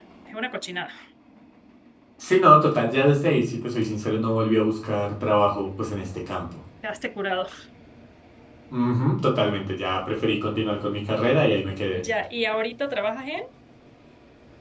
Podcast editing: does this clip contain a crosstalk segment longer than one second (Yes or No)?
No